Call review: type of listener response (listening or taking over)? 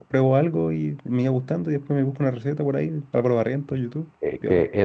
taking over